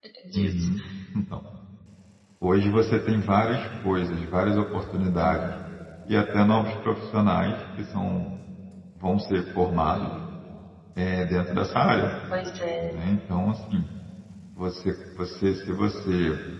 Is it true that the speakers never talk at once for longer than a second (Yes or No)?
Yes